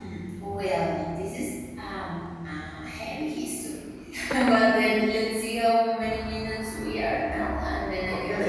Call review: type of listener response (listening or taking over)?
taking over